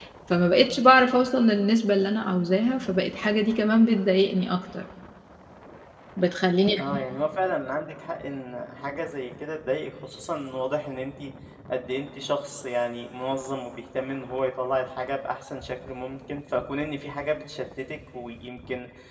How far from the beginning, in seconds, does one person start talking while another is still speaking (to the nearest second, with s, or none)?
none